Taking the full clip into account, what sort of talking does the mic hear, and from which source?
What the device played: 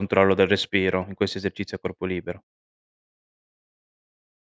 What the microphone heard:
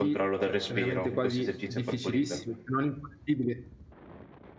both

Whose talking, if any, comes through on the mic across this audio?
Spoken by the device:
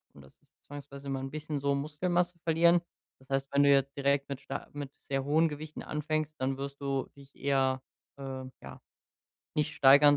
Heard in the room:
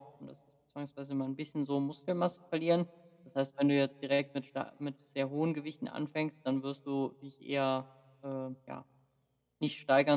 echo only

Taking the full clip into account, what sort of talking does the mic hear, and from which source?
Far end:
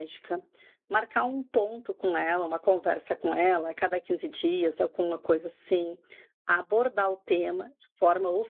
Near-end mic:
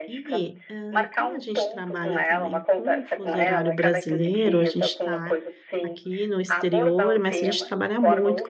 both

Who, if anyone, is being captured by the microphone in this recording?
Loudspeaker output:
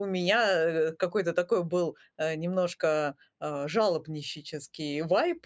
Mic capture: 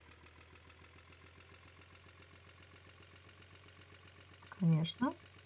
user only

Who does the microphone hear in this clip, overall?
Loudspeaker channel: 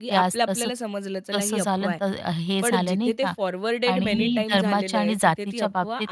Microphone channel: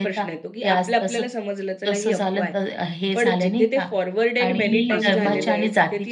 both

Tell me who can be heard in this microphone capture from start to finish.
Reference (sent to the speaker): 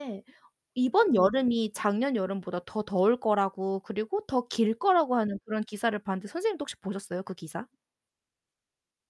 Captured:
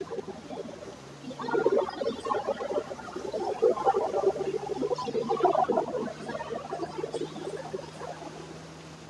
echo only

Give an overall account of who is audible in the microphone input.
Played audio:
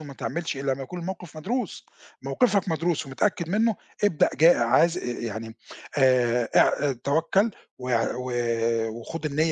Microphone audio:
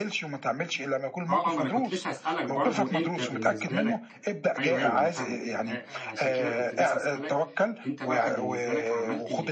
both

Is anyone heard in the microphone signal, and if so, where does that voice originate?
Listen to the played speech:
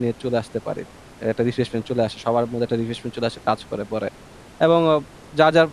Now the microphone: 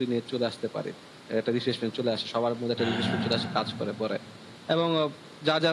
both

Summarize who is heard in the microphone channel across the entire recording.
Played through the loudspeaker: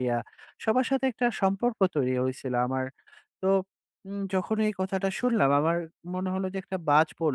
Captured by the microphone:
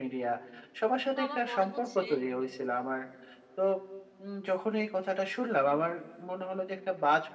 both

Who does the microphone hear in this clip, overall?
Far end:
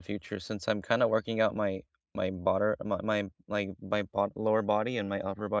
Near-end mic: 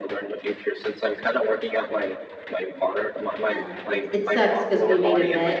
both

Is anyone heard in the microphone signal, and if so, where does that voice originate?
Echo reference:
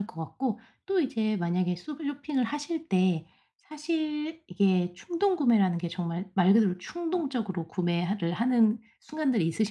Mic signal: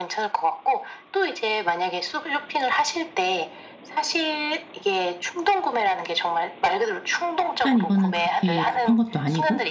both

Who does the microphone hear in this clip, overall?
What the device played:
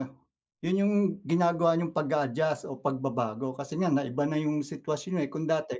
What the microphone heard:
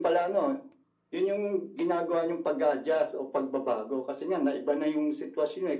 echo only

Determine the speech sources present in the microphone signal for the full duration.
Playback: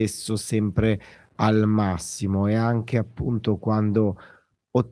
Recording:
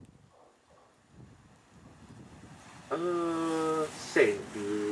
user only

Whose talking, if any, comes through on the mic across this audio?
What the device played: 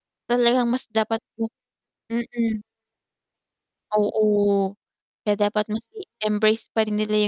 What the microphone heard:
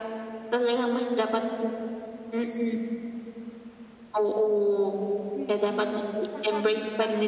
both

